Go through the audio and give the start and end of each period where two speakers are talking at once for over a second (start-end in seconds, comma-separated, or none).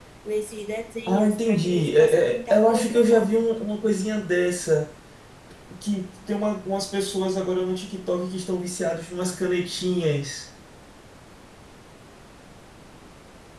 1.1-3.3